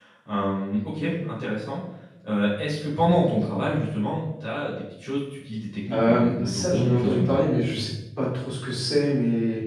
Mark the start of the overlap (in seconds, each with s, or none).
5.9 s